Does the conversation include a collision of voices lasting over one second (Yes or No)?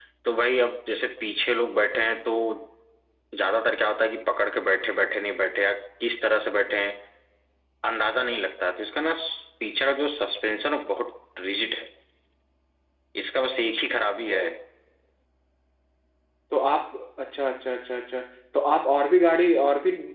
No